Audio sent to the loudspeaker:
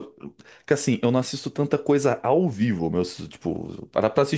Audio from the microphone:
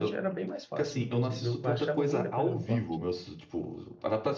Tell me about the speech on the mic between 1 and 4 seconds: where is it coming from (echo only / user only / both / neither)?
both